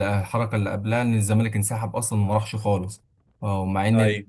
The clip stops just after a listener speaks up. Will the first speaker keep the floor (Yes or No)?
Yes